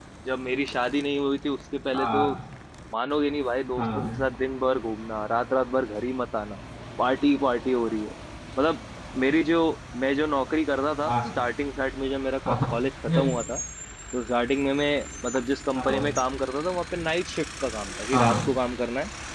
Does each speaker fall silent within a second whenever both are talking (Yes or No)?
Yes